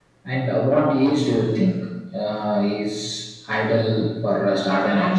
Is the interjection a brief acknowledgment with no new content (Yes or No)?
No